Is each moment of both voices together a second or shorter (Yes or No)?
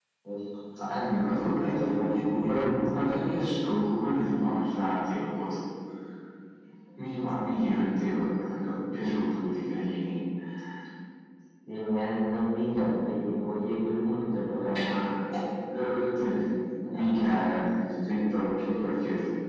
Yes